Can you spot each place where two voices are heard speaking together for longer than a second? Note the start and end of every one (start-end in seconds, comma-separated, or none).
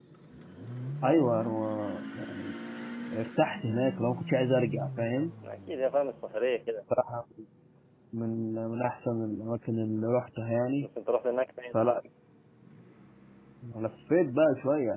none